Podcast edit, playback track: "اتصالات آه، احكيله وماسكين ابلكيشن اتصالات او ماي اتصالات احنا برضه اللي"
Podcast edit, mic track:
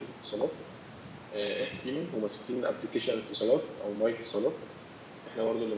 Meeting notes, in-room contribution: none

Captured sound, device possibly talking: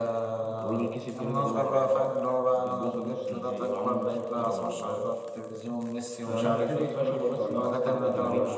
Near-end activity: present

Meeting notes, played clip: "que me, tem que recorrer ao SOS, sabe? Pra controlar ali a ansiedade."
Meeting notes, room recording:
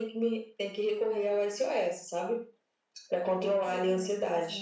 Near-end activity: present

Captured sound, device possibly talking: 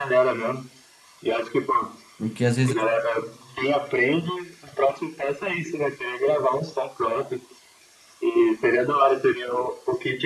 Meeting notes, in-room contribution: present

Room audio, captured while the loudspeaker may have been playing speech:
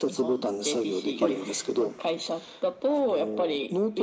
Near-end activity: present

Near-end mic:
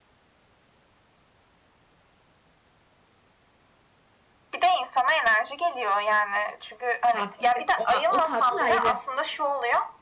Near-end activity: present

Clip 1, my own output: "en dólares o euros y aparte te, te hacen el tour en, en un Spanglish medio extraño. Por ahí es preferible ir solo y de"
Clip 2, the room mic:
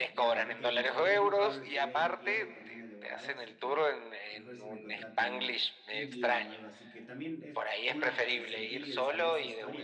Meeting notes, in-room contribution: present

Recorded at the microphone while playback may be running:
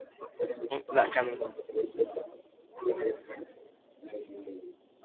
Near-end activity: present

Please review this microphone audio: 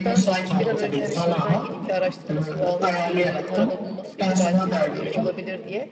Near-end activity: present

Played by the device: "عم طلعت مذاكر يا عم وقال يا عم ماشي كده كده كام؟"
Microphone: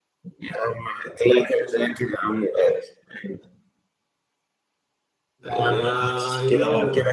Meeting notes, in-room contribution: present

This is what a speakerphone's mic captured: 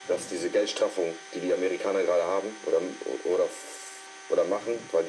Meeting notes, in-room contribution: none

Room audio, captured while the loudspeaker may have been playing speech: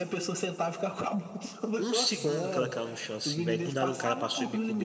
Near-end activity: present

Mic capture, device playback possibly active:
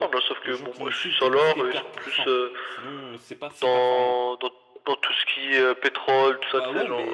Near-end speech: present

